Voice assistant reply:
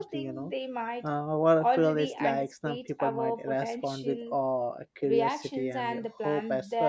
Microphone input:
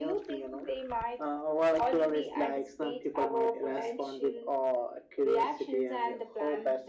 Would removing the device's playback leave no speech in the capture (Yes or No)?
Yes